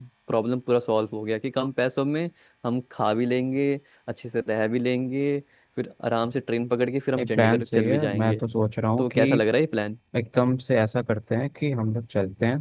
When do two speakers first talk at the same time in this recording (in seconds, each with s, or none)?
7.2 s